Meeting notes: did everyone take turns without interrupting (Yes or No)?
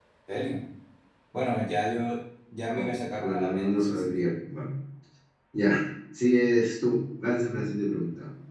No